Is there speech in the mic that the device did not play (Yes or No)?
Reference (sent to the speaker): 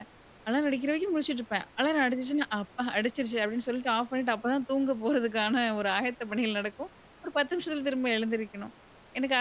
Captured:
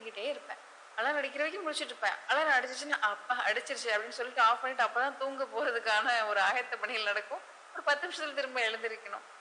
No